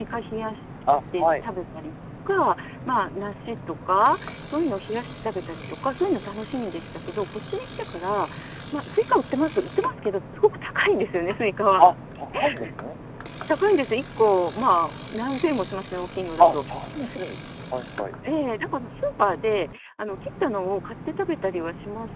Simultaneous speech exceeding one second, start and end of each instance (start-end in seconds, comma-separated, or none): none